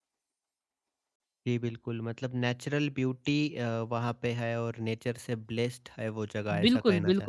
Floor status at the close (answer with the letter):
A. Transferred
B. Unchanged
A